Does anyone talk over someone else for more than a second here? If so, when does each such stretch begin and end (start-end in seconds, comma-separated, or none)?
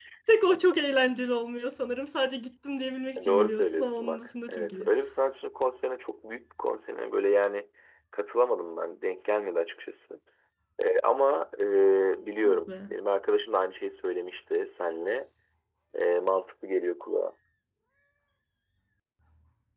3.3-4.9